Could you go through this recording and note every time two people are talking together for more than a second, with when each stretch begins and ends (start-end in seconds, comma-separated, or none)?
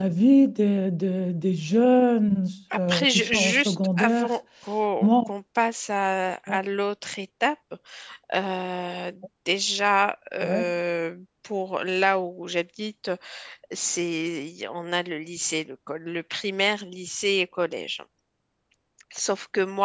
2.8-4.3